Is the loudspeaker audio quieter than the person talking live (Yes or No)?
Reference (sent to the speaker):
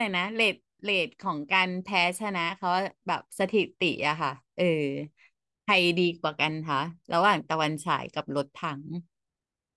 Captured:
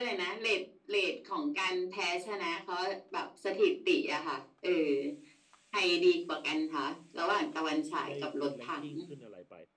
No